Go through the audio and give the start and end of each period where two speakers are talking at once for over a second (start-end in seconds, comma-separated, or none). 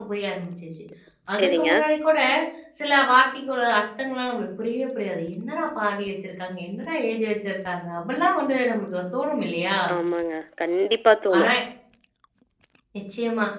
none